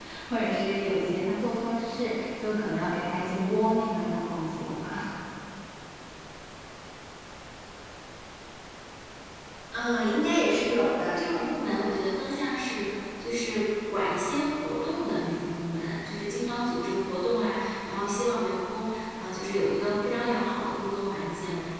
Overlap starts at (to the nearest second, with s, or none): none